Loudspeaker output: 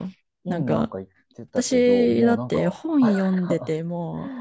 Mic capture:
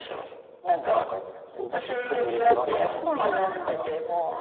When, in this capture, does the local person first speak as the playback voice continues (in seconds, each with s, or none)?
1.6 s